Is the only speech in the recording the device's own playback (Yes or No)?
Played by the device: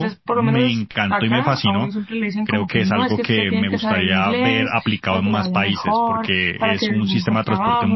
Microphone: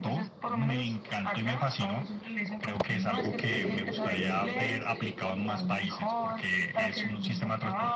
Yes